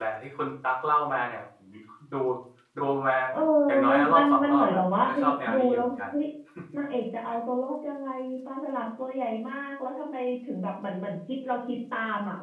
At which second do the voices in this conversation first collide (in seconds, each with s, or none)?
3.9 s